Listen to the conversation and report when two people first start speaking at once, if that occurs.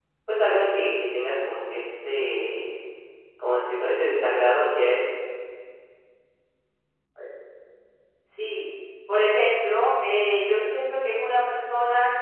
none

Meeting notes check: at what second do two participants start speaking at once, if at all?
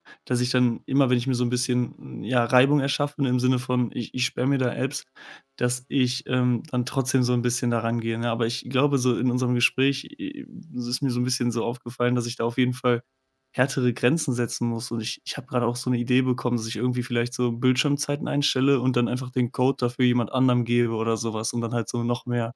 none

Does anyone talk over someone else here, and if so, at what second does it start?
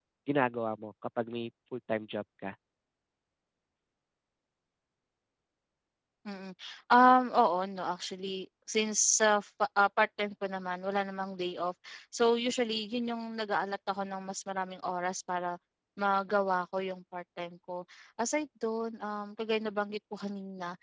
none

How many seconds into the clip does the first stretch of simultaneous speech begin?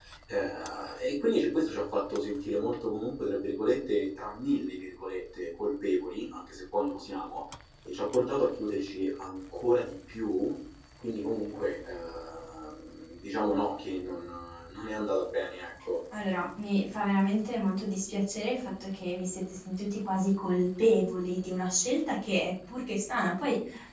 none

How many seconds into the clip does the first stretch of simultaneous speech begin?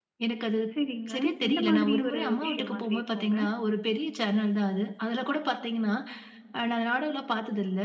1 s

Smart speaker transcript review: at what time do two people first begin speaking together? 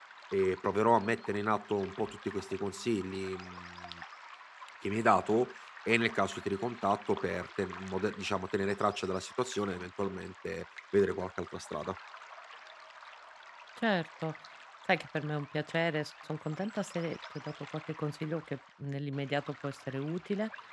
none

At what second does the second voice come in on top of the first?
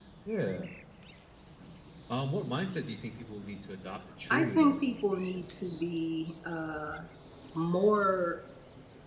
4 s

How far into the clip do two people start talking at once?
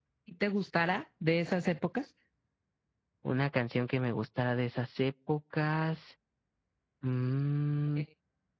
none

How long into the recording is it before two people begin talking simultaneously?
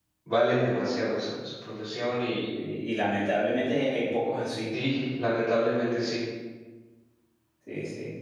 none

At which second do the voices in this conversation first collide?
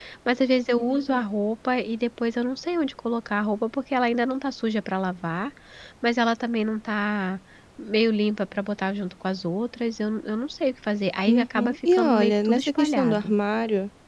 11 s

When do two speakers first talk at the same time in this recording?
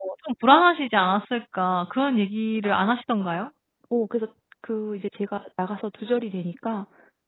none

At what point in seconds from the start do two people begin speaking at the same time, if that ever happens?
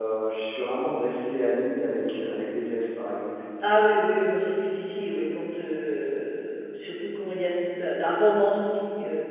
none

